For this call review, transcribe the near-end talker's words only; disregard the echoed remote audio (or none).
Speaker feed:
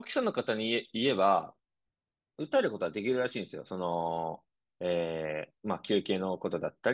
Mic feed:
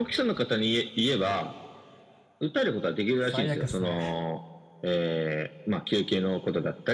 最悪っすね。